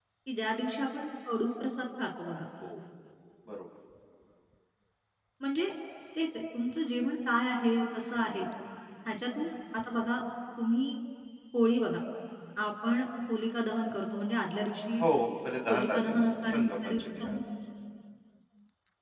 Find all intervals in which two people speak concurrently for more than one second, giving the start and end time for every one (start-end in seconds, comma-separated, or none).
15.7-17.3